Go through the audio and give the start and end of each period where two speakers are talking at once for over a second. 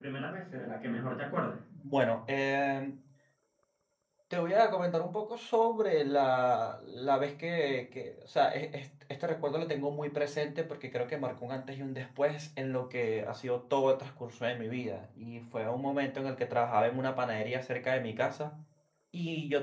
none

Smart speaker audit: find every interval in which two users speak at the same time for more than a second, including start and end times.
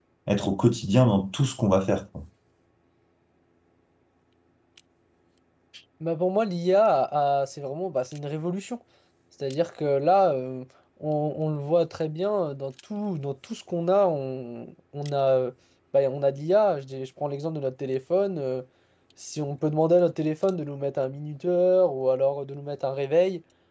none

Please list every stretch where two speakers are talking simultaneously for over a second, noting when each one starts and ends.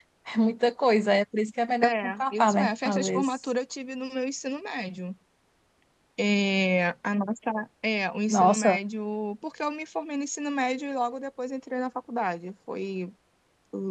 1.8-3.3

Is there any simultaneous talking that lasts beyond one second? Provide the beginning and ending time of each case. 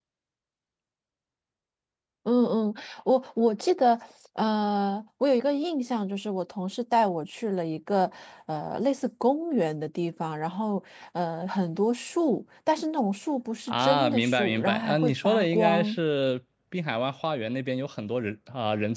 13.7-16.0

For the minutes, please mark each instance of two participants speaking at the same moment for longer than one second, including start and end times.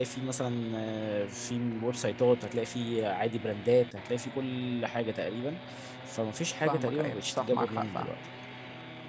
6.6-8.1

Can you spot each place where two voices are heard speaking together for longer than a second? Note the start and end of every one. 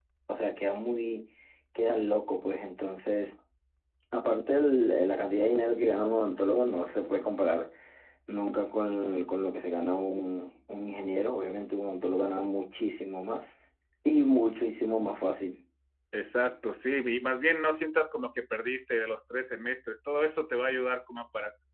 none

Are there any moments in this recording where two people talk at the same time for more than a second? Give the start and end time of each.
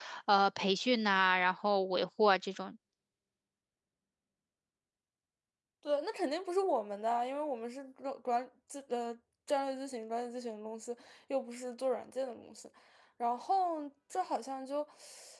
none

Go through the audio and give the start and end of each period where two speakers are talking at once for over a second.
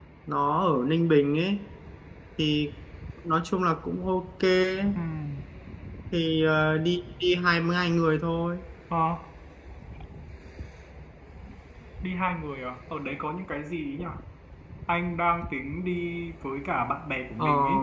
none

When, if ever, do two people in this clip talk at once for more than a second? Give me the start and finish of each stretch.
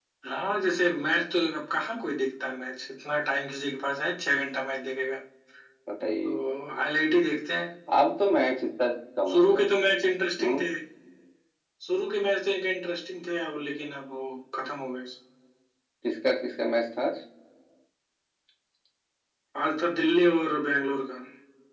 none

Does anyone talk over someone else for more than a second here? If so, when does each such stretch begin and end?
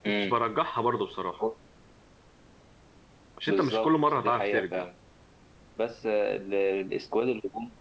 3.5-4.8

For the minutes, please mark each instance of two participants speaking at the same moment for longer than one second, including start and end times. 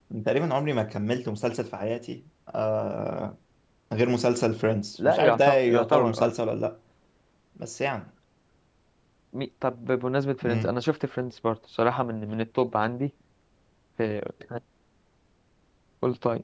5.0-6.3

